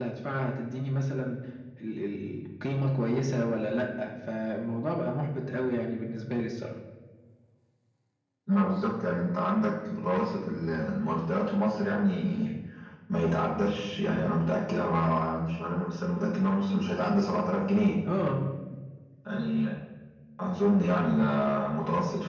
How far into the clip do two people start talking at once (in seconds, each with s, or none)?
none